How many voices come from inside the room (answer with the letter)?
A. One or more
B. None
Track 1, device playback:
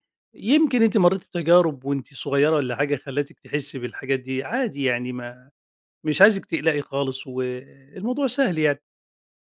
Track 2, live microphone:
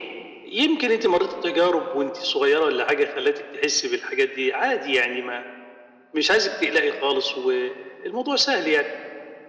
B